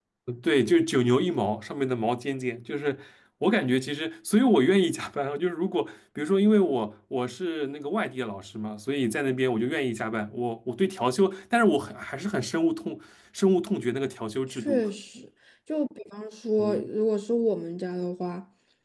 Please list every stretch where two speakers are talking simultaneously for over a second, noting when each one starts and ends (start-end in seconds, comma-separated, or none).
none